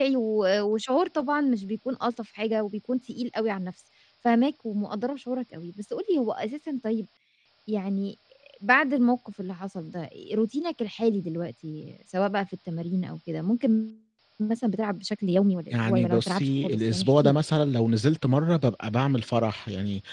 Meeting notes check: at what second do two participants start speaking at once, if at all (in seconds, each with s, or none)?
15.7 s